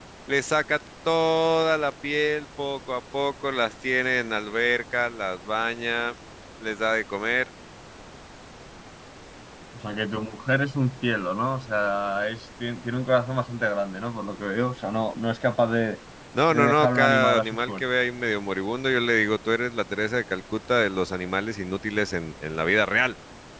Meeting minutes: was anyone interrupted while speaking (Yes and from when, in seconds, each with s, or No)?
Yes, from 16.5 s